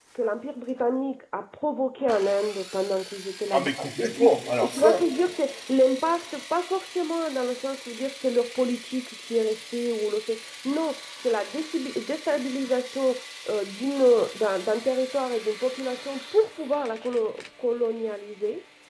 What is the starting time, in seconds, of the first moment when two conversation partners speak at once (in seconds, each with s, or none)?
3.5 s